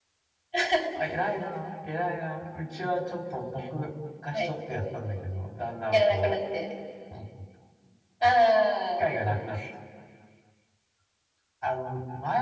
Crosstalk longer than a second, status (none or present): none